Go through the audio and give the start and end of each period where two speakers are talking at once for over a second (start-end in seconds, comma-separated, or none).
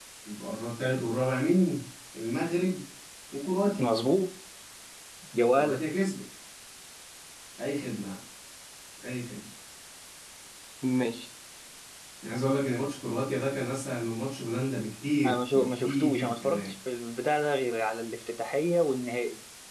15.2-16.7